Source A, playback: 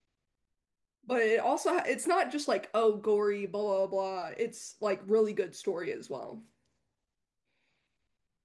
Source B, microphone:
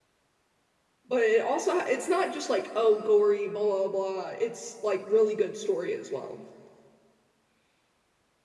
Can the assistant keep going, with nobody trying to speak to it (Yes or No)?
Yes